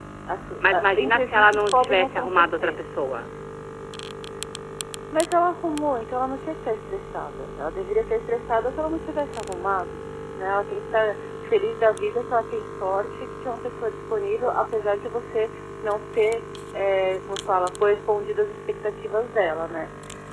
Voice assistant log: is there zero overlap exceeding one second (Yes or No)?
No